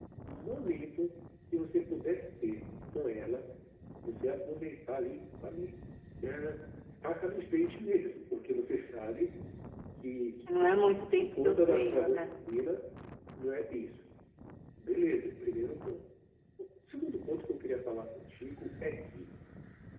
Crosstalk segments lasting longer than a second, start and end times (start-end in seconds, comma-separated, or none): 10.6-12.1